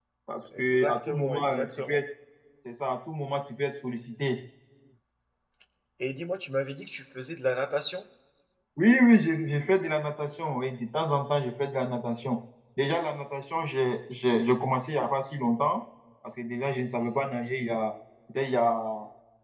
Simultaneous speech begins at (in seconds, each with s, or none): 0.6 s